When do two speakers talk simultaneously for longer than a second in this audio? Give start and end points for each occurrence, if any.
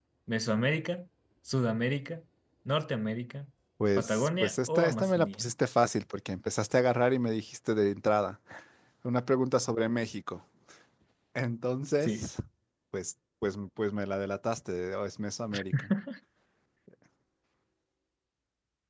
4.0-5.5

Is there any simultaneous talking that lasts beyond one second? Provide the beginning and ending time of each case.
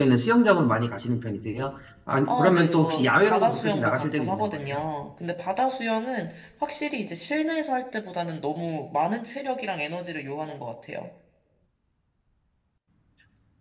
2.3-4.8

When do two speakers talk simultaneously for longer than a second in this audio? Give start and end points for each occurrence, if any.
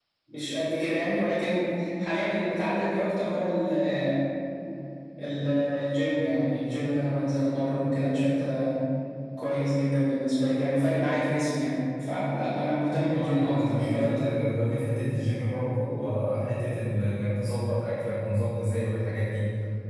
13.0-14.5

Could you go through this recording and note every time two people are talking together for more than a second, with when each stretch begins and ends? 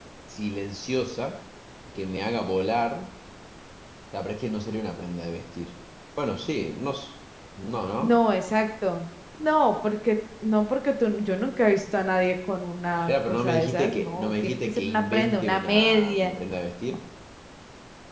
13.1-16.3

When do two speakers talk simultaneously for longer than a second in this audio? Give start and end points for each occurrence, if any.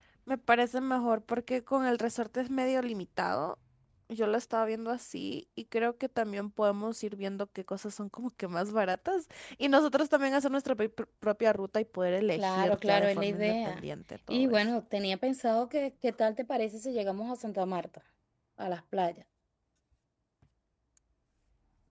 12.4-13.8

